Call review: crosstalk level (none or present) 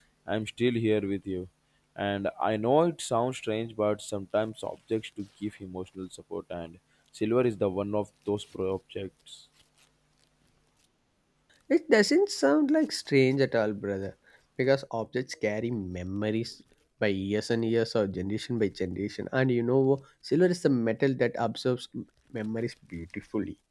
none